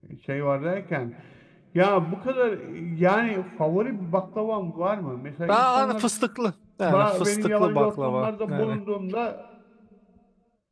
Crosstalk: present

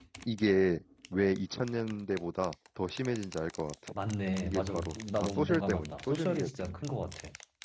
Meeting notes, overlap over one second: present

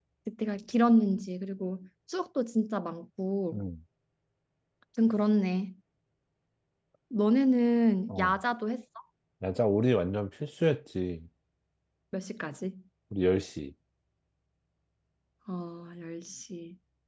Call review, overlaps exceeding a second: none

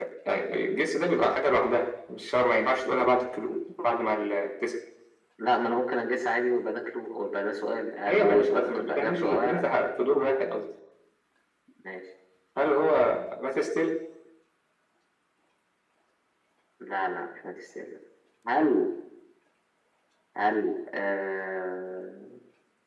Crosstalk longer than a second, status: present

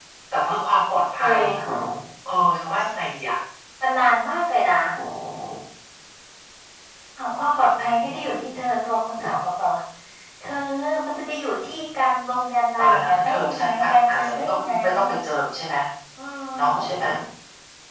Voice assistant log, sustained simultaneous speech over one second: present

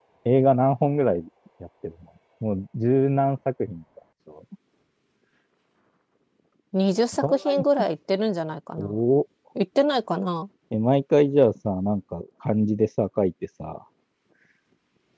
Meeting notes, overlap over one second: none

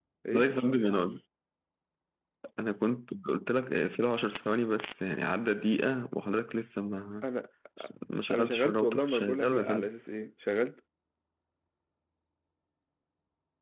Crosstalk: present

